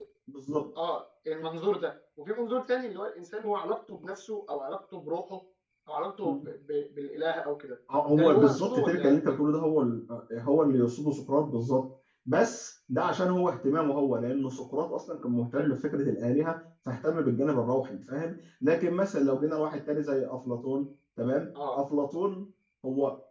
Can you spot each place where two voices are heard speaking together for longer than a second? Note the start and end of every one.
8.2-9.4

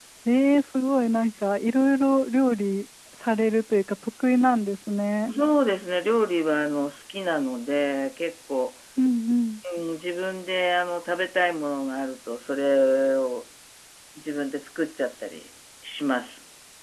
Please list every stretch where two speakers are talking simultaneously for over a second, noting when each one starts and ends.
none

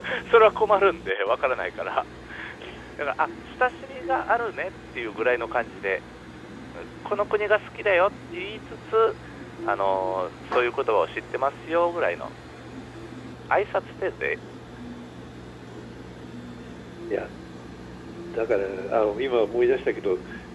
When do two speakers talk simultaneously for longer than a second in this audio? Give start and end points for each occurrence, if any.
none

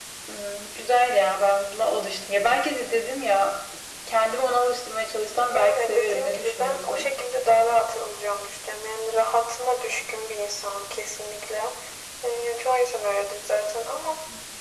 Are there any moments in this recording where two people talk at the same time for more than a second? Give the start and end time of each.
5.5-7.1

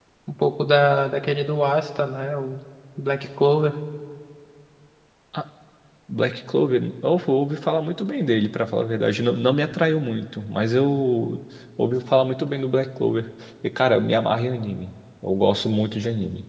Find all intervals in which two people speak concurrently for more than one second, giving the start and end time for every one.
none

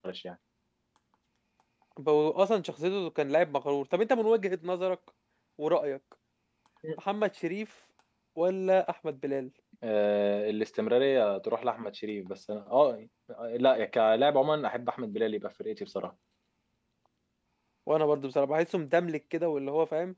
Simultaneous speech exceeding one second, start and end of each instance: none

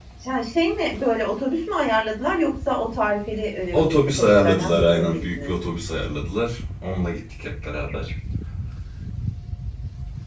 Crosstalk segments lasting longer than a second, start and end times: 3.7-5.5

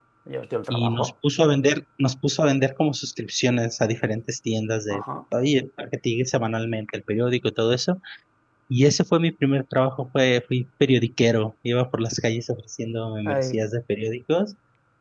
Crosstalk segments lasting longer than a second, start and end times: none

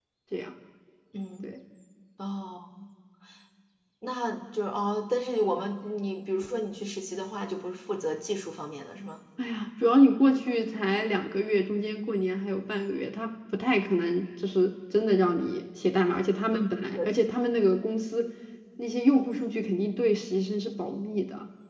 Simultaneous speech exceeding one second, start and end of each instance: none

